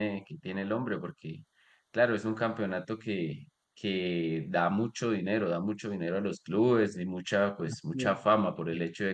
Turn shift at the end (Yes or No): No